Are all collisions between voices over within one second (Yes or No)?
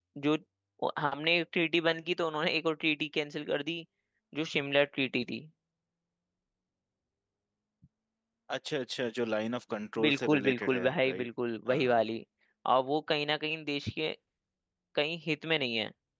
No